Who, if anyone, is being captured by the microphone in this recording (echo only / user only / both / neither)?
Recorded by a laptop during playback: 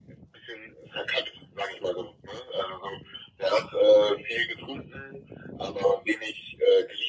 echo only